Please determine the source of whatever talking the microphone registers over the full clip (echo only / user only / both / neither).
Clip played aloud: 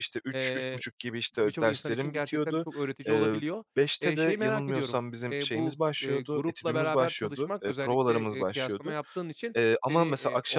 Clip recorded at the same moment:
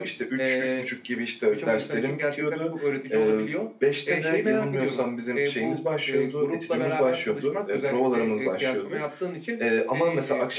echo only